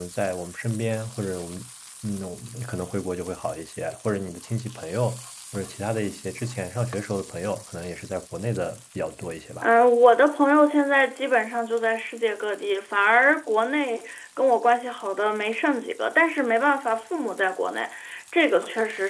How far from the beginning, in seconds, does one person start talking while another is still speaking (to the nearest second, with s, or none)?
none